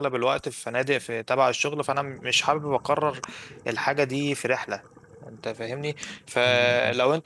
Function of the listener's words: listening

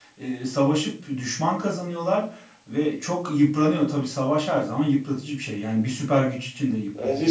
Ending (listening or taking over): taking over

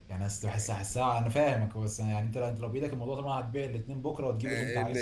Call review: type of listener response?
taking over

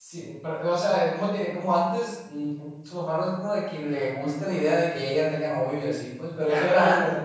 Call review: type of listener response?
taking over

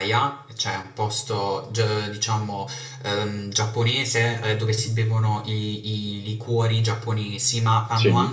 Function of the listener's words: listening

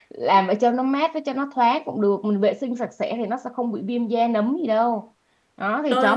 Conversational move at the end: listening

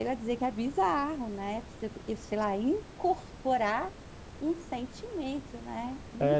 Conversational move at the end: taking over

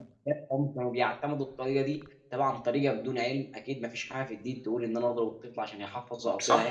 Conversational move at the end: taking over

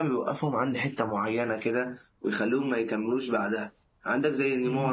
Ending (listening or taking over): listening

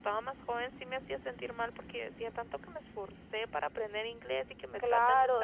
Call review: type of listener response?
taking over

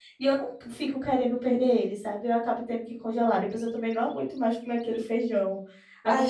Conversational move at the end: taking over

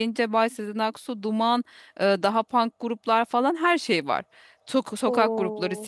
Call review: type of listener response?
listening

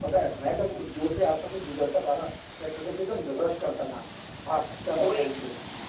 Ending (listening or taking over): taking over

